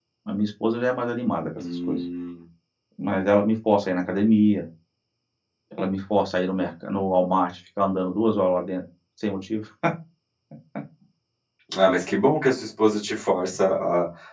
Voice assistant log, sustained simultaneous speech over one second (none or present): none